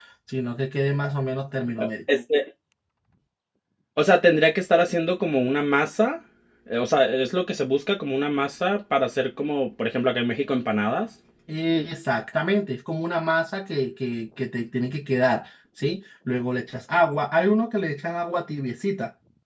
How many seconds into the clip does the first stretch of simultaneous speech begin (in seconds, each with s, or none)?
none